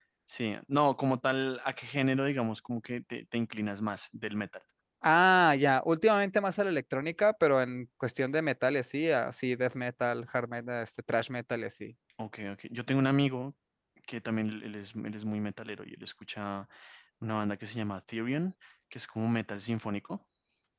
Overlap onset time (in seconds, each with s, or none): none